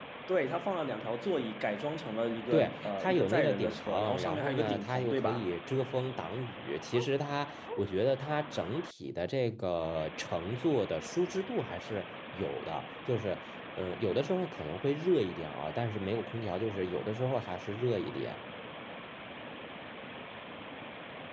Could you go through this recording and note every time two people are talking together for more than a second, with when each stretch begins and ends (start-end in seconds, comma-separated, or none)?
2.5-5.5